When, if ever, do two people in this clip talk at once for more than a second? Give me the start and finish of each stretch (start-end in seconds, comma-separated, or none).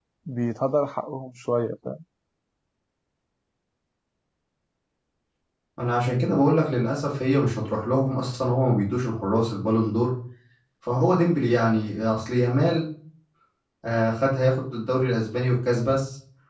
none